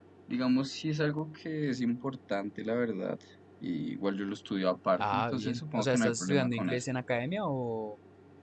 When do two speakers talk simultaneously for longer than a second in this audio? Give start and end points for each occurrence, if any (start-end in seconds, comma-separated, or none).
4.9-6.8